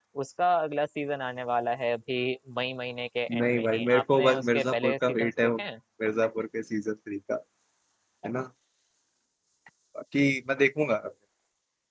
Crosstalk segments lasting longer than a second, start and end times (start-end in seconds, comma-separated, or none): 3.4-5.6